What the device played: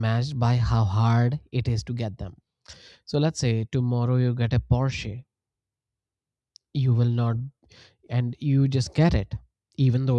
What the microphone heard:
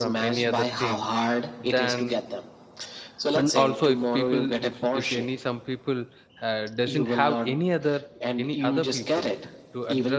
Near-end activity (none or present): present